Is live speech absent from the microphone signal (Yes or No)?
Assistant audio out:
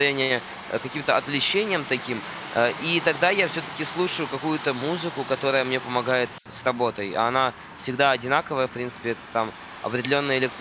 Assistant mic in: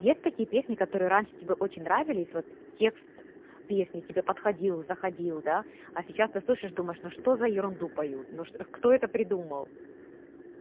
No